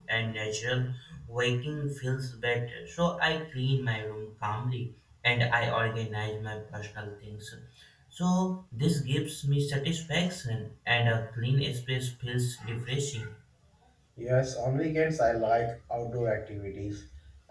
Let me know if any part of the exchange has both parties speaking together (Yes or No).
No